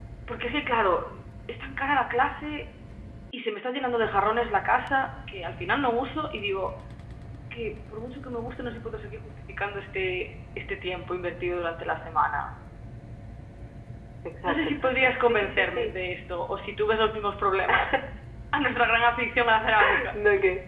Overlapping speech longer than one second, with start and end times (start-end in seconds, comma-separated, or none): 14.4-15.9